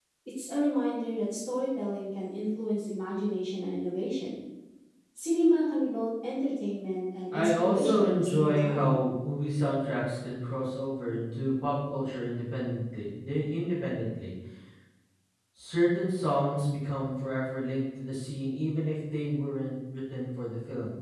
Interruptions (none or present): present